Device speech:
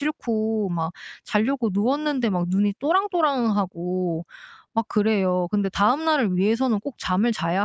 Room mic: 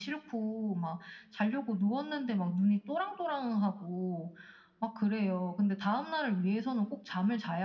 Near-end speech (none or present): none